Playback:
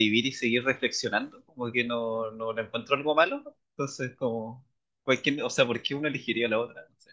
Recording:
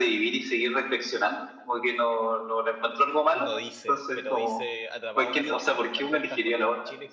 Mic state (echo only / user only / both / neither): both